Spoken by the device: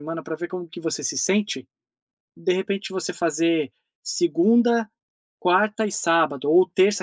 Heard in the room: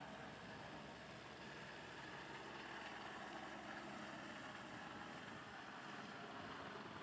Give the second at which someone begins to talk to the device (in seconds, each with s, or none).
none